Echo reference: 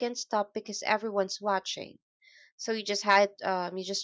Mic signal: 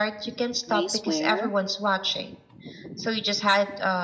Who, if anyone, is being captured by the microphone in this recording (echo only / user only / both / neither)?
both